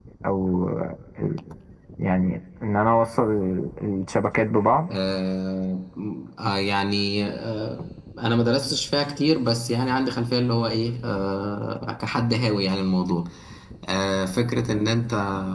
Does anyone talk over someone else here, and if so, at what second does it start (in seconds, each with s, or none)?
none